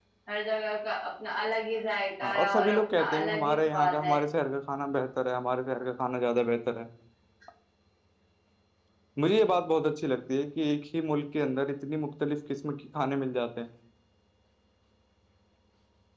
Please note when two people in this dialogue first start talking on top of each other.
2.2 s

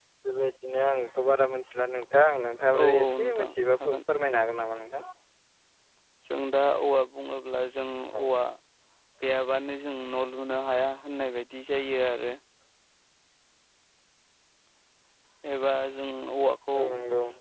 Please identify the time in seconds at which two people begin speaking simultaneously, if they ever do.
2.8 s

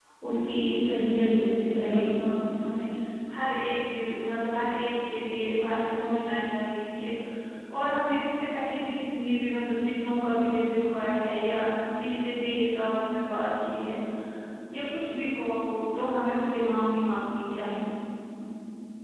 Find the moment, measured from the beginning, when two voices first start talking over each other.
0.8 s

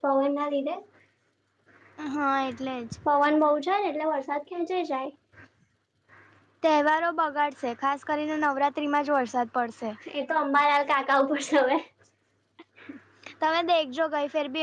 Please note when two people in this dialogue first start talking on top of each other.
none

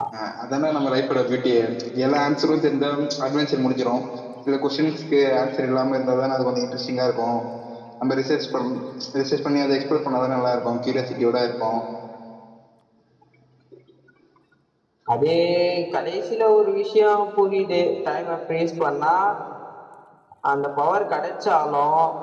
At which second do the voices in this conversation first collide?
none

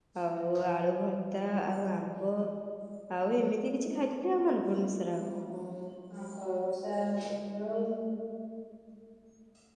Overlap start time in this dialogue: none

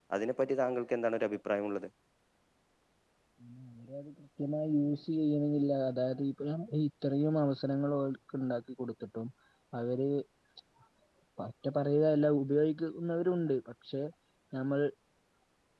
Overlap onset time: none

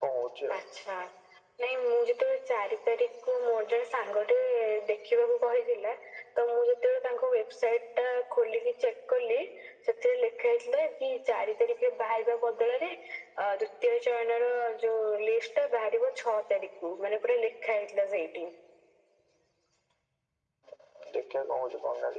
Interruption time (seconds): none

